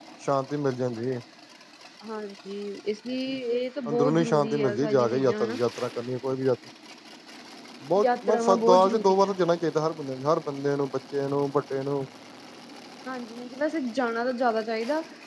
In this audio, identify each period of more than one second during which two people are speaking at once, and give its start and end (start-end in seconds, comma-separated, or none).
3.9-5.6, 8.0-9.3